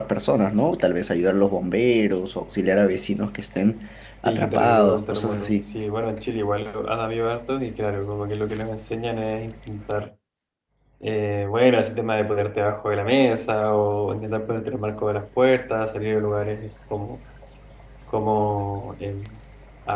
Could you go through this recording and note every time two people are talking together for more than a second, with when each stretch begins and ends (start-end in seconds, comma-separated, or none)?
4.2-5.7